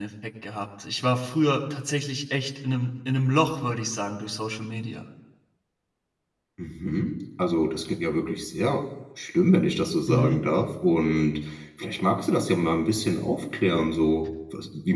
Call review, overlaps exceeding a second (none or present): none